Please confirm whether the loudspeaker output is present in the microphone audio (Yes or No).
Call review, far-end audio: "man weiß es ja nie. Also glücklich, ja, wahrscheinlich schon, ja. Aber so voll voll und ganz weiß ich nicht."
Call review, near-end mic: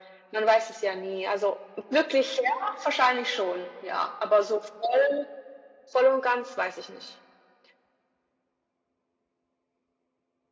Yes